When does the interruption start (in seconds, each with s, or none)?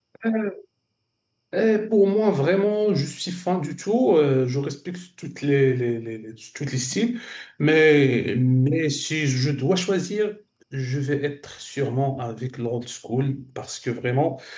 none